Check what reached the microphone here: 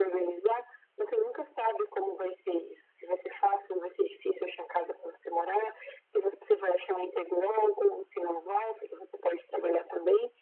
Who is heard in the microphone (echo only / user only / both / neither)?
echo only